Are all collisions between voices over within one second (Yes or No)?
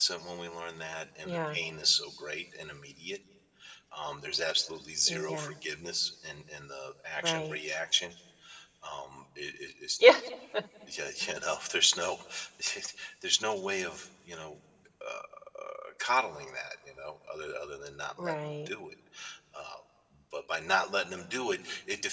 Yes